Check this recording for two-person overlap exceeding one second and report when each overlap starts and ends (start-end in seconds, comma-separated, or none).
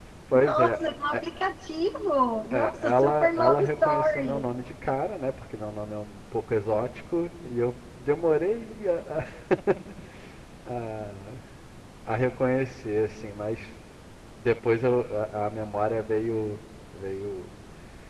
2.5-4.5